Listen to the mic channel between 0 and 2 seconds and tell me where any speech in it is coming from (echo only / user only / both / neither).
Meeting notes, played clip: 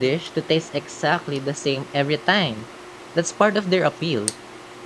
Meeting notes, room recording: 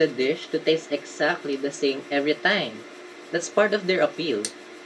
echo only